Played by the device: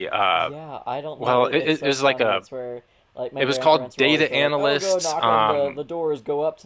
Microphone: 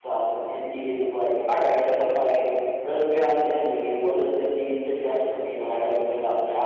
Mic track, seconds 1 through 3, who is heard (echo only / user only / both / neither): user only